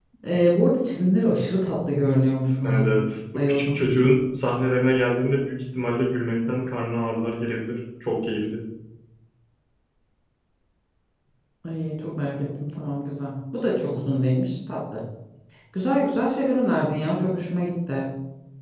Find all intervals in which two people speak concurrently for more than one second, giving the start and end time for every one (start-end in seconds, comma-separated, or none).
none